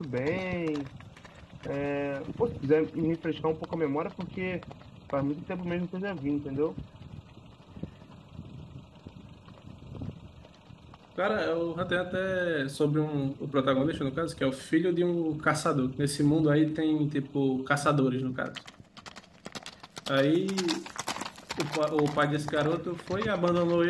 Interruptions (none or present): none